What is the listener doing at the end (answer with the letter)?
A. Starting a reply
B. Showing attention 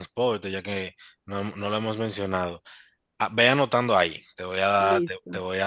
B